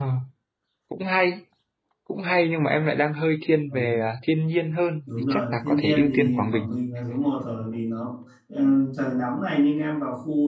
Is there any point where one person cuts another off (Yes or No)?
Yes